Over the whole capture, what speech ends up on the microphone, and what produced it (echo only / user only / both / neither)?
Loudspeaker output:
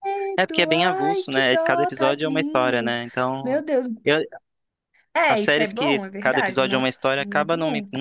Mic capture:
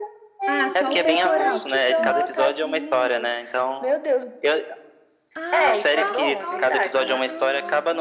both